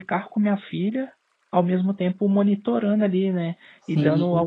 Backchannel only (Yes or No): Yes